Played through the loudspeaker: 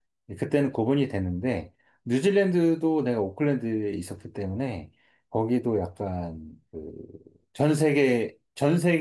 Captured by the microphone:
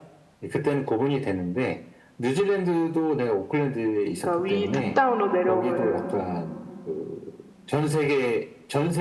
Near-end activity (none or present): present